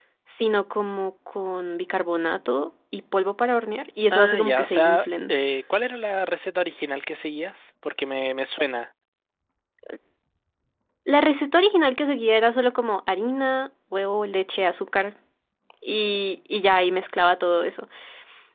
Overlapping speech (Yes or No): Yes